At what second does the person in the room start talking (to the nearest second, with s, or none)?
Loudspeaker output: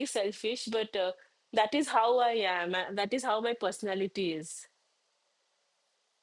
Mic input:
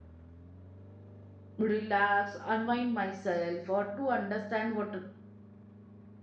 2 s